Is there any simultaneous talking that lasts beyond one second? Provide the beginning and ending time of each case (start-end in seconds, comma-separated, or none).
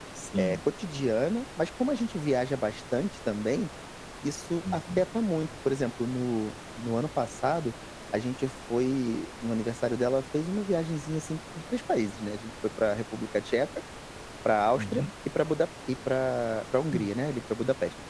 none